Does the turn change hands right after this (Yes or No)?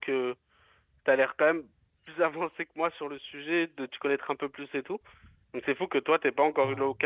No